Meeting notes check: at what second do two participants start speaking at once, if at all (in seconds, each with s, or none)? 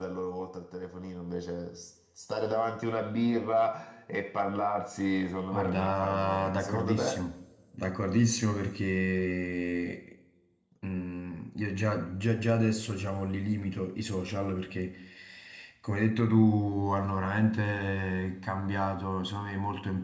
5.5 s